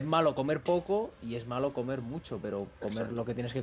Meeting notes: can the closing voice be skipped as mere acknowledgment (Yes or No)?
Yes